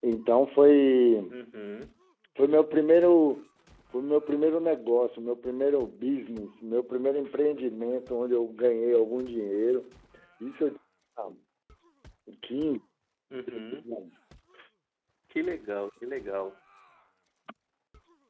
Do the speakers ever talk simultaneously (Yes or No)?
No